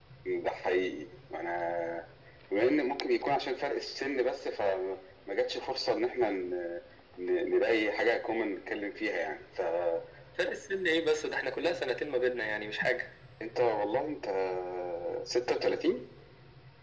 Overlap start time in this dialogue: none

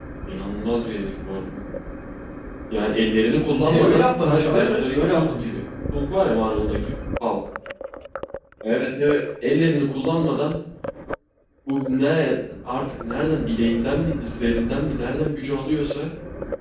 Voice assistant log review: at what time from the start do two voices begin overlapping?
3.5 s

